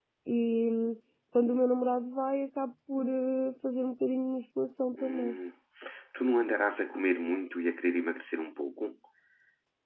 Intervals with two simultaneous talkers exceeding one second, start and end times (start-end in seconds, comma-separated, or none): none